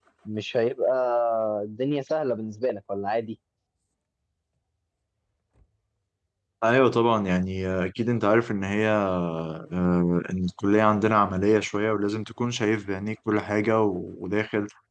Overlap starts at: none

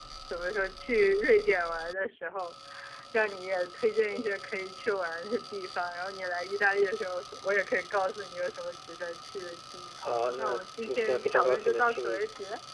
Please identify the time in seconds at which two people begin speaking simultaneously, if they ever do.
10.0 s

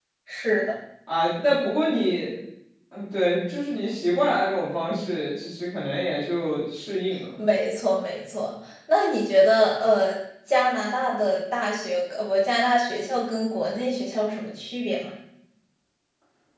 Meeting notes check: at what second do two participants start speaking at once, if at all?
none

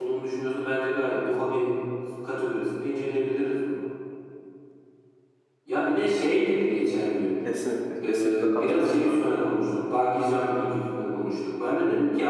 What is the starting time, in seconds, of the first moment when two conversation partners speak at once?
8.1 s

